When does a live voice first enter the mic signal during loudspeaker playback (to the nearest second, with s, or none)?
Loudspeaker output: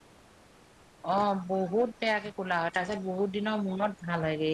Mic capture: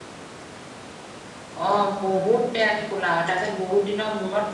none